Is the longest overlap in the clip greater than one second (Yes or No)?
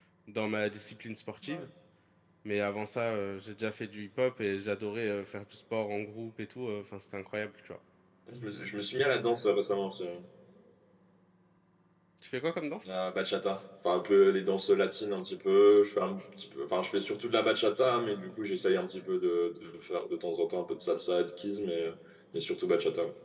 No